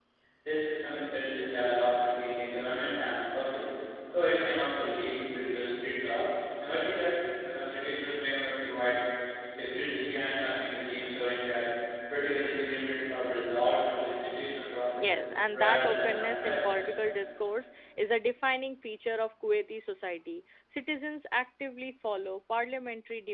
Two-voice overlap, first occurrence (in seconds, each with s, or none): 14.9 s